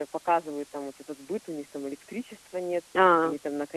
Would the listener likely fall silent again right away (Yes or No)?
Yes